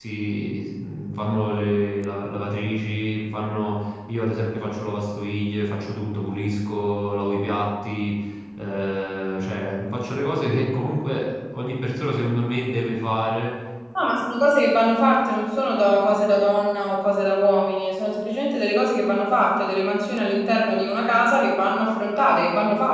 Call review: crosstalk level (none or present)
none